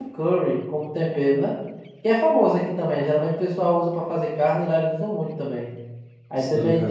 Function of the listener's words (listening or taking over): listening